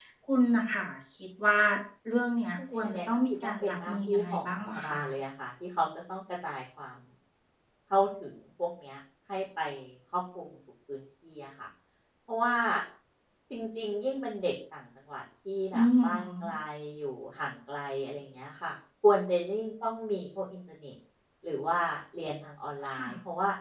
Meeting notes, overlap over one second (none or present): present